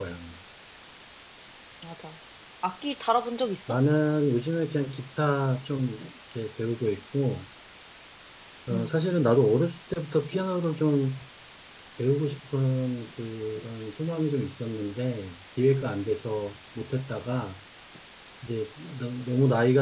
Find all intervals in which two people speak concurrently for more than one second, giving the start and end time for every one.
none

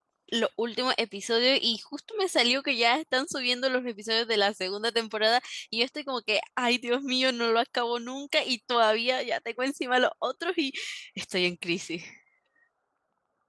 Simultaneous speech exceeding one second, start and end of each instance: none

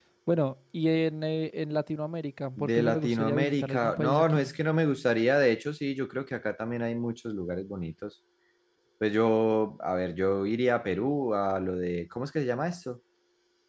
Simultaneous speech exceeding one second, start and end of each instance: 2.6-4.5

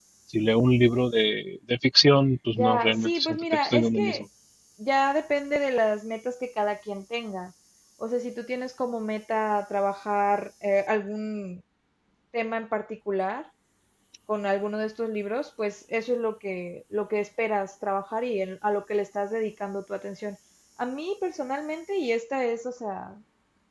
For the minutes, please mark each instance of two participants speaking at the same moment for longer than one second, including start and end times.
2.5-4.2

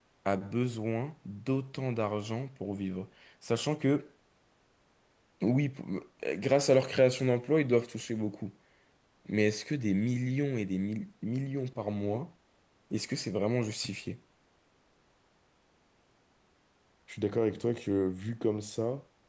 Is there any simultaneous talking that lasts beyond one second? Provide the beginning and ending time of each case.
none

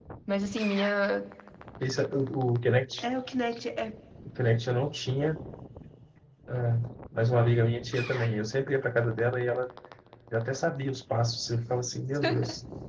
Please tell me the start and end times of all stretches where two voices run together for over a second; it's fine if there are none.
none

